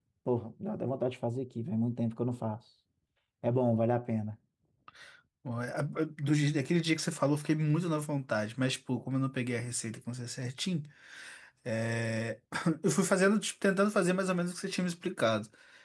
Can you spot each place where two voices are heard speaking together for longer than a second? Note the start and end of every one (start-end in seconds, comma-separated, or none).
none